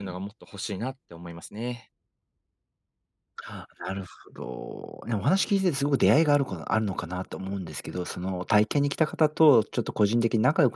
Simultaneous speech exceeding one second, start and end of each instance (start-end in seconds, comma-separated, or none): none